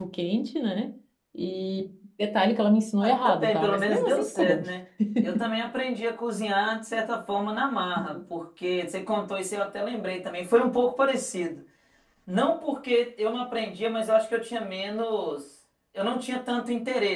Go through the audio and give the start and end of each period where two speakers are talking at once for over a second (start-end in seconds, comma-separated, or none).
3.0-4.6